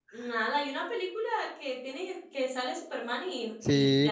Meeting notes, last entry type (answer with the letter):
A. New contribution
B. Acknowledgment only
A